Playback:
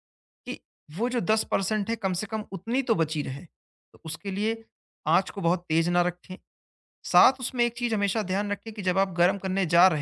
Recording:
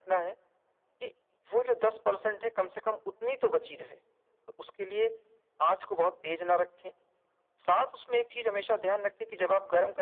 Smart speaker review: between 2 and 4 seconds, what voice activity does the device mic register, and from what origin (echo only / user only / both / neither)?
echo only